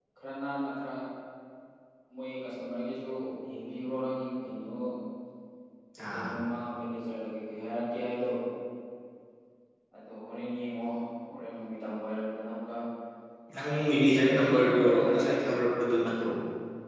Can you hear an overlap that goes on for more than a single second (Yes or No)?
Yes